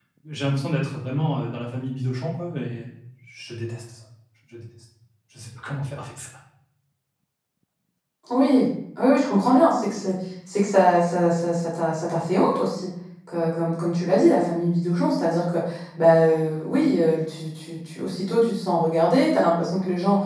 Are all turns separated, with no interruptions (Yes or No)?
Yes